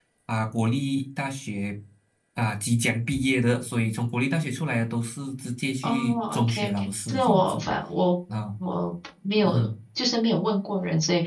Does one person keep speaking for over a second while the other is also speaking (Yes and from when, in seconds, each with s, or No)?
Yes, from 5.8 s